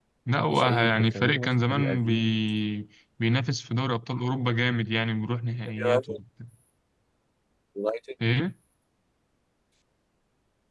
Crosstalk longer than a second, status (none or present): present